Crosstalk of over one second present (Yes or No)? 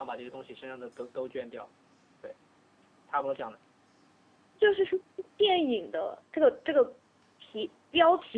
No